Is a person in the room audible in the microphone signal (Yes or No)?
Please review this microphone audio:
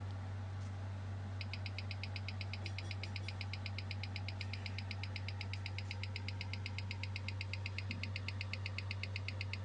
No